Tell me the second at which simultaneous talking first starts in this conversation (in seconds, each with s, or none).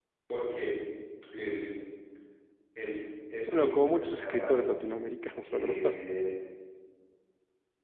3.5 s